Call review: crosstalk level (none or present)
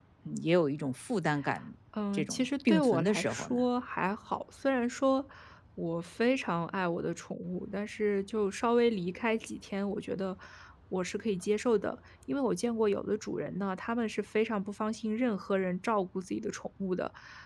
present